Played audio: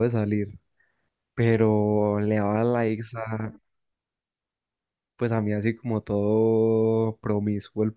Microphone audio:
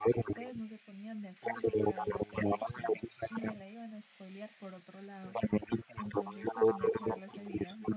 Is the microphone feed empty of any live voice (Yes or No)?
No